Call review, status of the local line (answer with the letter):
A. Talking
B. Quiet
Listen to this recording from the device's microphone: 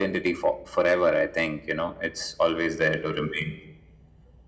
B